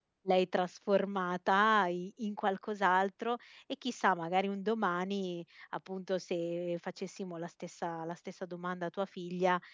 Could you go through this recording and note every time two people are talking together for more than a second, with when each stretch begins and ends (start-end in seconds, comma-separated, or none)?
none